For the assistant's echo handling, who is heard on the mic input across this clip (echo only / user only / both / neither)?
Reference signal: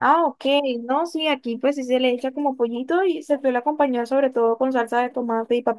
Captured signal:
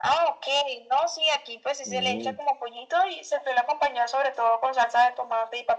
both